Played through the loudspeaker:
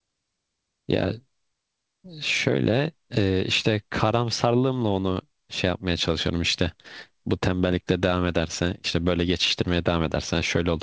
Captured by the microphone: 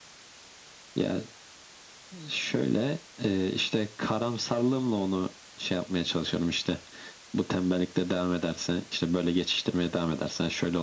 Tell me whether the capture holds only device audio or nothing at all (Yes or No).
Yes